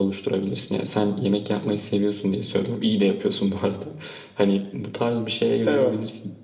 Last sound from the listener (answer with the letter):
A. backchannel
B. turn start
A